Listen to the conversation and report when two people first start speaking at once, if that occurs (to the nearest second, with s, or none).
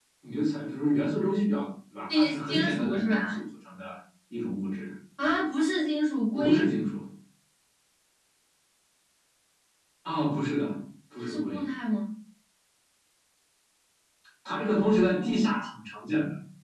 2 s